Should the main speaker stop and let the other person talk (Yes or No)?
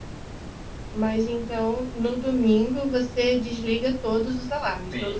Yes